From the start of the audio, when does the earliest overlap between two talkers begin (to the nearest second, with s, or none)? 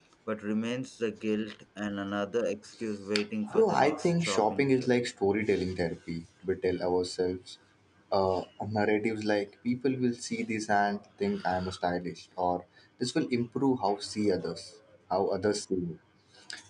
4 s